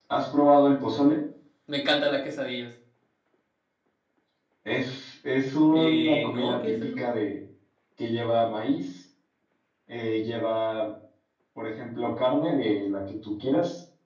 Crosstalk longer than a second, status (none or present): present